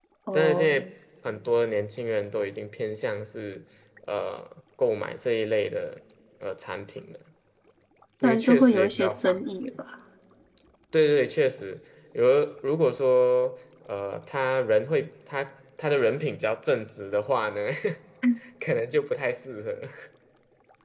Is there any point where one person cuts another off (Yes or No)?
Yes